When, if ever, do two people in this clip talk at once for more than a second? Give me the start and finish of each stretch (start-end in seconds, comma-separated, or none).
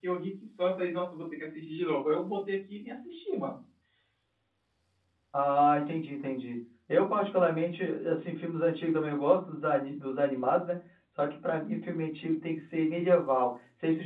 none